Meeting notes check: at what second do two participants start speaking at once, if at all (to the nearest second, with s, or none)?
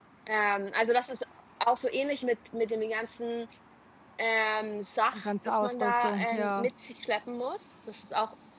5 s